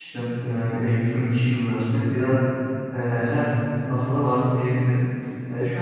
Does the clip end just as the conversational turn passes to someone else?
No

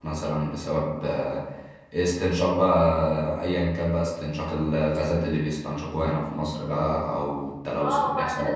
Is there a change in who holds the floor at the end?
Yes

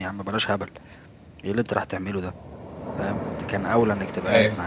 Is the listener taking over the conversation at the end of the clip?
No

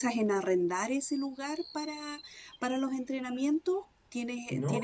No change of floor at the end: No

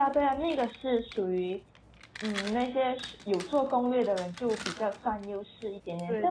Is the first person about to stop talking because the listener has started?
No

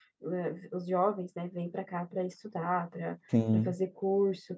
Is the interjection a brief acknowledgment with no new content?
Yes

